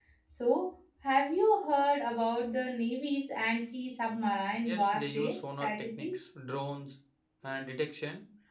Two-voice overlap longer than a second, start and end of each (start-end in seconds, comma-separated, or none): 4.6-6.2